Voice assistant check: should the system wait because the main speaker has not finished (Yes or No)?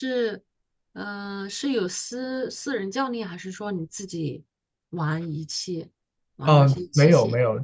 No